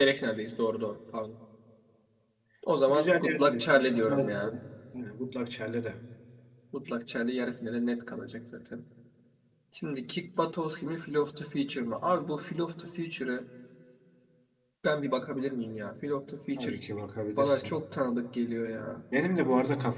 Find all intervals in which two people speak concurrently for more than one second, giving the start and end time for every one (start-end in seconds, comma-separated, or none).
2.9-4.5